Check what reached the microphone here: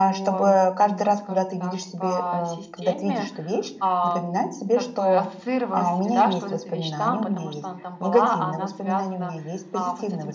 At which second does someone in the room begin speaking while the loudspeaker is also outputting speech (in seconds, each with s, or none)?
none